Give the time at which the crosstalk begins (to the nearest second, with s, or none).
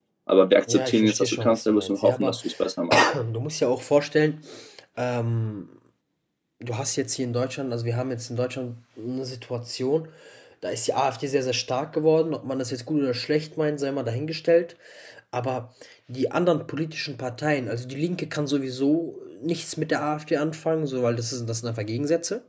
1 s